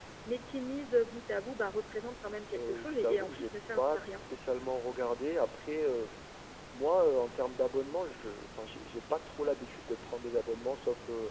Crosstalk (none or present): present